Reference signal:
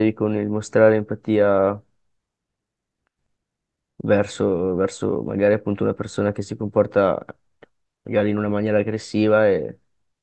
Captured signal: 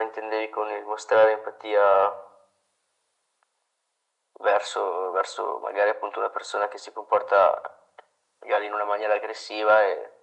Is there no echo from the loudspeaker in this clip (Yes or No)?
No